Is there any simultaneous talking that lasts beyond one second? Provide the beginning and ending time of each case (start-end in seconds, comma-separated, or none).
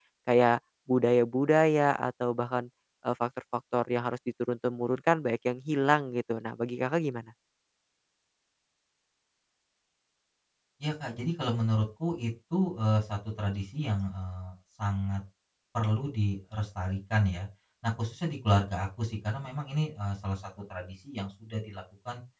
none